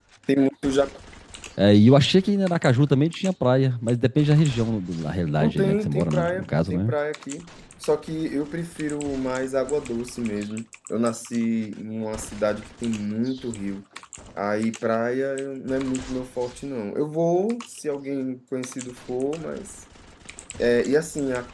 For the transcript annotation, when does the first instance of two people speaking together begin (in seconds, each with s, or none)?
5.4 s